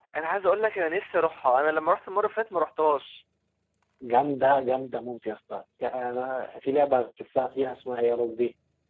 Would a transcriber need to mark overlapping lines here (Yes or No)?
No